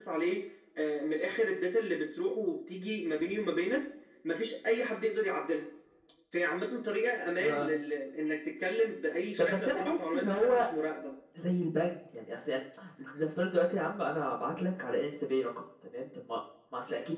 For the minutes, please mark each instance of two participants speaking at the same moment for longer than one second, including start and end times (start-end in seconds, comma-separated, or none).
9.4-10.7